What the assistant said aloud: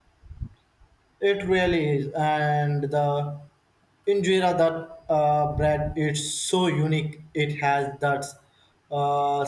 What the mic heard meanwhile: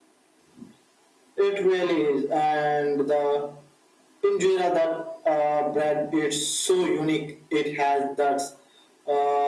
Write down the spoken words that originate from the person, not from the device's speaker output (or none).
none